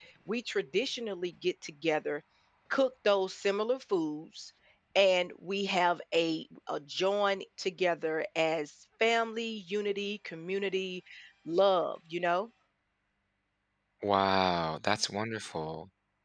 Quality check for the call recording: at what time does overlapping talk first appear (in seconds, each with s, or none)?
none